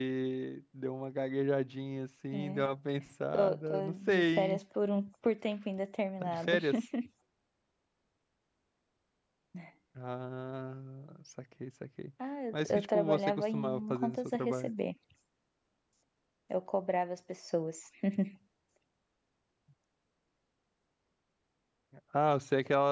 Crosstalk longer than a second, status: present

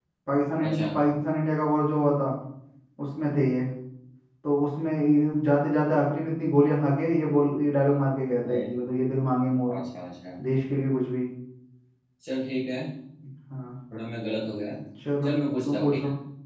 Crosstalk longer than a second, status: none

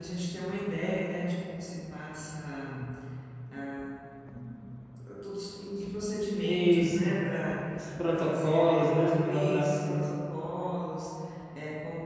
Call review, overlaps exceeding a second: present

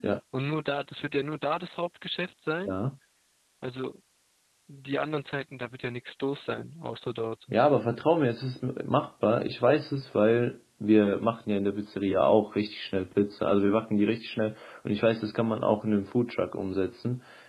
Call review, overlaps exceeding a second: none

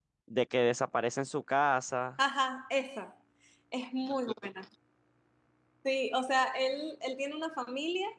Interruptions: none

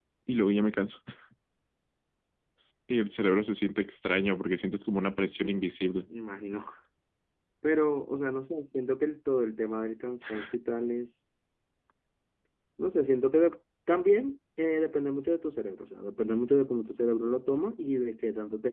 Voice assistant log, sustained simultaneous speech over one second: none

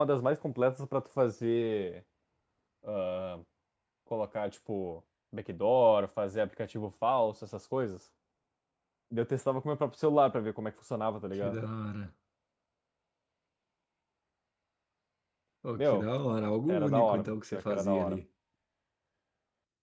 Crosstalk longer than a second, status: present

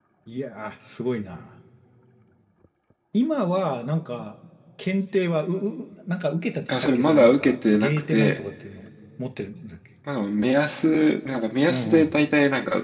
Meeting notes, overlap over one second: present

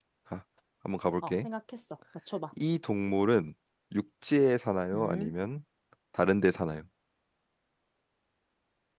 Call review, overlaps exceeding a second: none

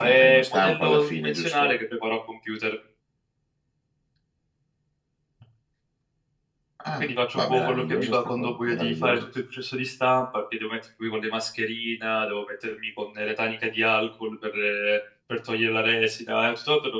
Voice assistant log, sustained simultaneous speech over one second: present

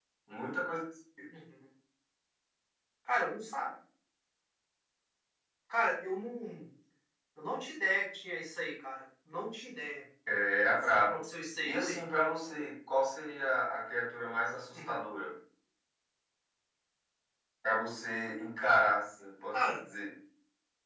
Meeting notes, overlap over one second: none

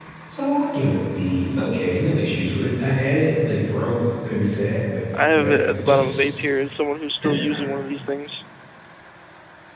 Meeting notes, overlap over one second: none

